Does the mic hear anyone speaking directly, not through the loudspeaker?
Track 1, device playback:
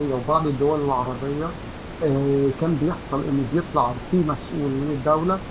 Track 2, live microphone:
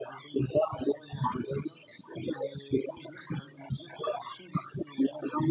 No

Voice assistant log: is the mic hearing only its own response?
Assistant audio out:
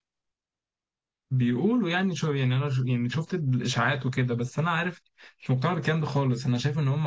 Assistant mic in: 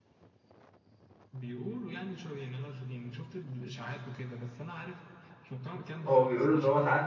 No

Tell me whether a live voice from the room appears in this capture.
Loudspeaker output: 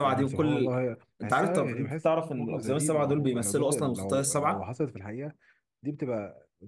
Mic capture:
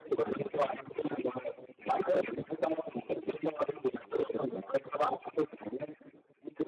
No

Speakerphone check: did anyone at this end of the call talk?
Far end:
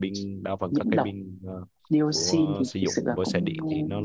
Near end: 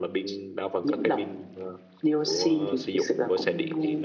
No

